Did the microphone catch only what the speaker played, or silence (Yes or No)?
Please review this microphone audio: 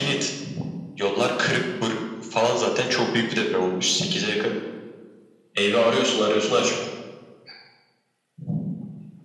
Yes